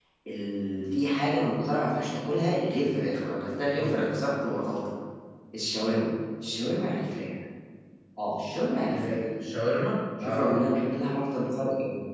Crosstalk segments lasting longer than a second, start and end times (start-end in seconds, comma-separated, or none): none